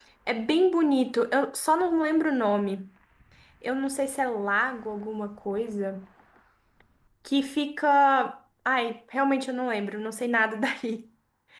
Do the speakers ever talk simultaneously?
No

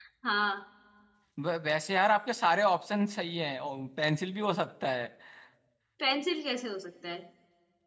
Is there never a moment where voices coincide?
Yes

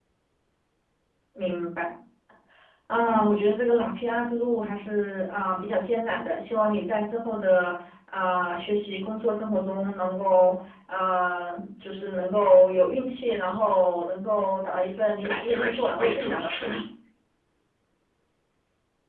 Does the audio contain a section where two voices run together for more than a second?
Yes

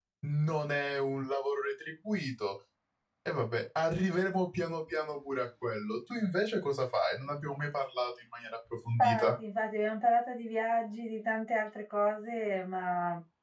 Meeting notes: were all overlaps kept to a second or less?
Yes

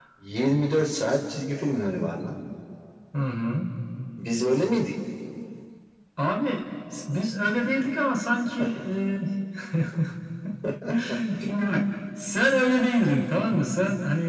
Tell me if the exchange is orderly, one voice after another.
Yes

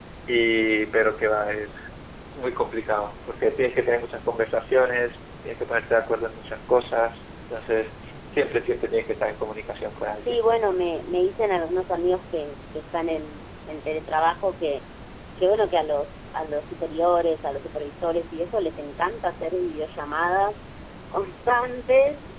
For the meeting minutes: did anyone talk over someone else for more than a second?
No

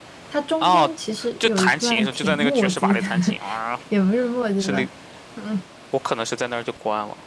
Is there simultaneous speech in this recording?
Yes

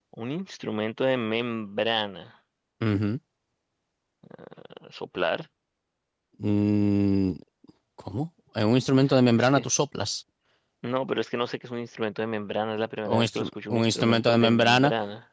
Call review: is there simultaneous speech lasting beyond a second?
Yes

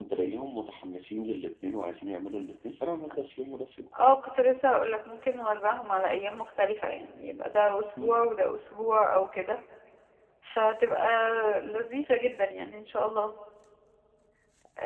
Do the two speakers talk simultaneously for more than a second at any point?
No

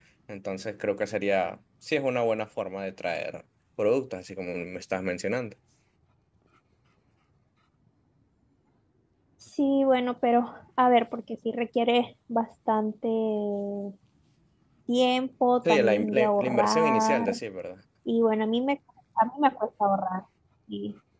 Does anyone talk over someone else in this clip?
Yes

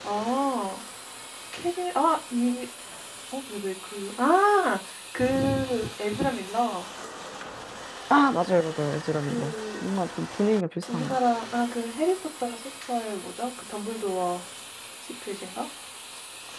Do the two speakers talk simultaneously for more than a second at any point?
No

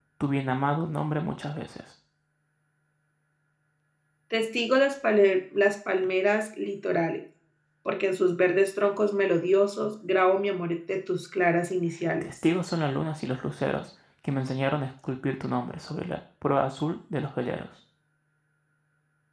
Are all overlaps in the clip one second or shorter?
Yes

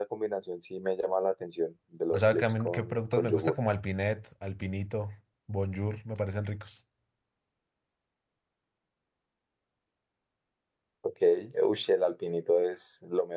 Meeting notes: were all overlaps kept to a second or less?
No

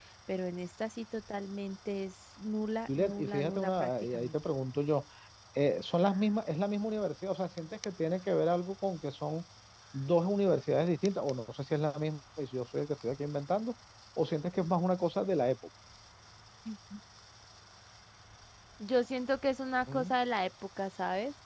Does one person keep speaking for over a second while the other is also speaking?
Yes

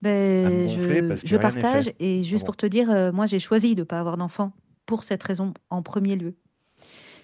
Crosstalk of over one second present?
Yes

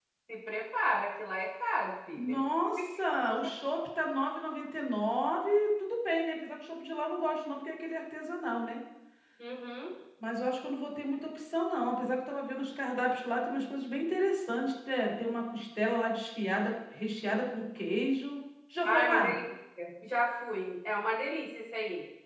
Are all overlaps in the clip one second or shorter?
Yes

